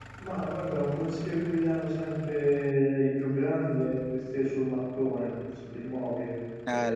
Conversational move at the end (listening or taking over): taking over